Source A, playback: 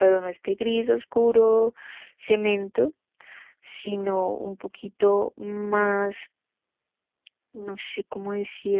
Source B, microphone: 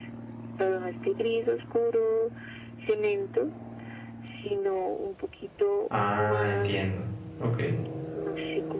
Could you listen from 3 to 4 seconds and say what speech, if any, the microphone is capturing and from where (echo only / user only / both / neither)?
echo only